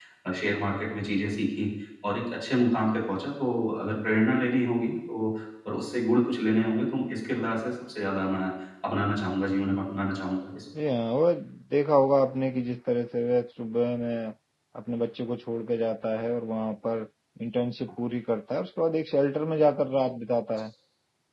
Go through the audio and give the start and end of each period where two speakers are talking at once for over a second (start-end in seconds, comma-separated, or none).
none